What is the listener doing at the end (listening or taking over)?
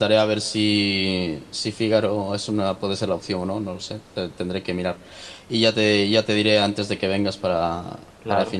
taking over